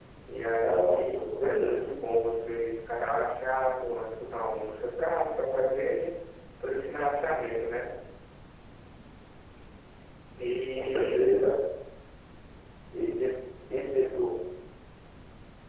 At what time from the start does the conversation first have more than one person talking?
0.6 s

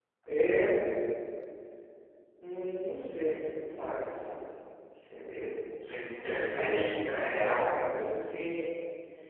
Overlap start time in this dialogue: 6.2 s

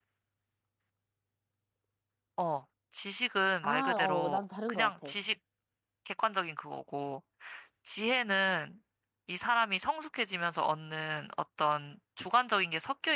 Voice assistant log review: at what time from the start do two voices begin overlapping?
3.6 s

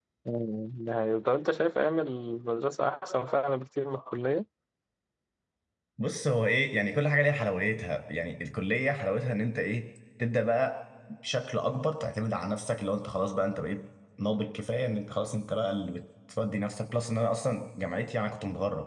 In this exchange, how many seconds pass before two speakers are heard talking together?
none

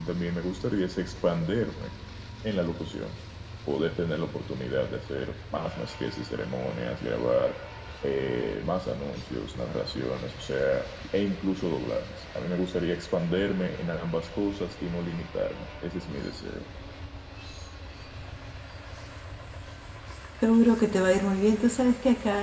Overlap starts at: none

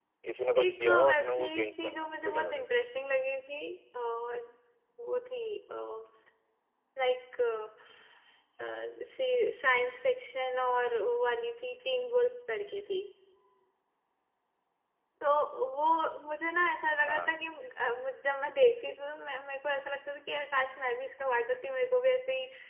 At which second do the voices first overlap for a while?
0.6 s

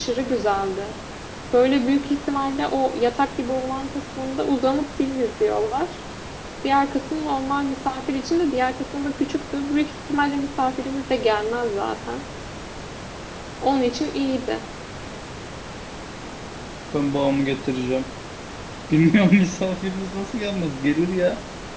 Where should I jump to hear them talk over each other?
none

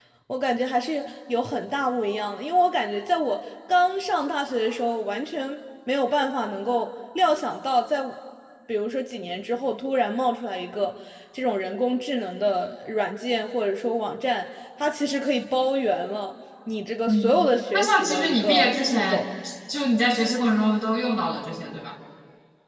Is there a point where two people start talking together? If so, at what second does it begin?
17.1 s

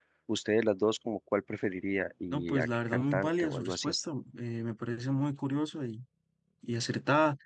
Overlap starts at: 2.3 s

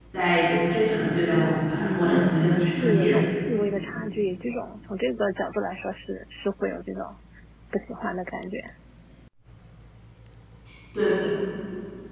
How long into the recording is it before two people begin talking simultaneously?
1.8 s

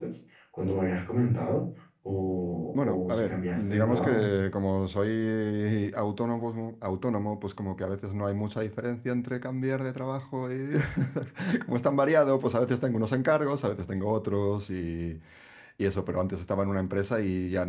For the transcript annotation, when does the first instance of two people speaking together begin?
2.8 s

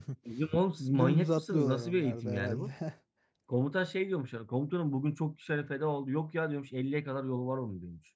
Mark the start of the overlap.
1.0 s

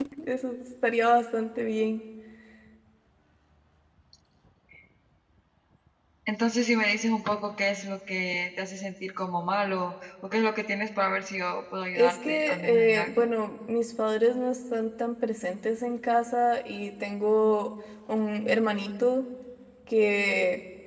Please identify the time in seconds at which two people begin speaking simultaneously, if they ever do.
11.9 s

